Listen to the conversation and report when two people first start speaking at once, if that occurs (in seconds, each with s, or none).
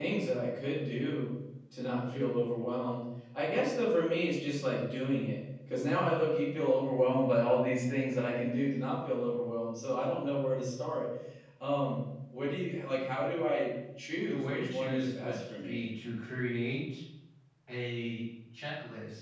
14.3 s